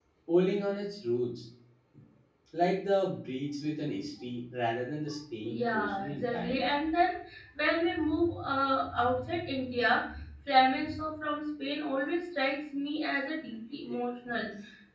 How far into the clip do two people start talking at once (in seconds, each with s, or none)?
5.4 s